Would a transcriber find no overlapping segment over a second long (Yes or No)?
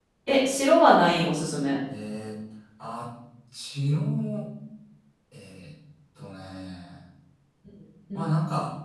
Yes